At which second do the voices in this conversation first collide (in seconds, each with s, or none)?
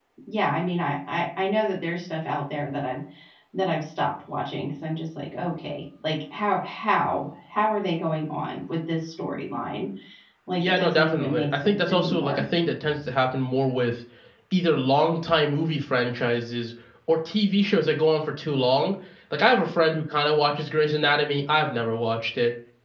10.6 s